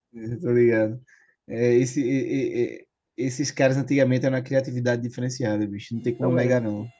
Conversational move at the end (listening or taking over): taking over